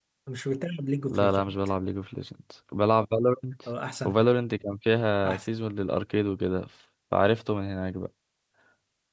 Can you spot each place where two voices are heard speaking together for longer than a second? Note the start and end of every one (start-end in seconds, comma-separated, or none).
none